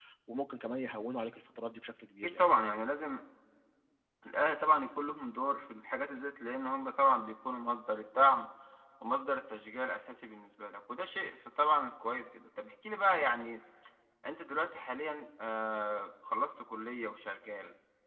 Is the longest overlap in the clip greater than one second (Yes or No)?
No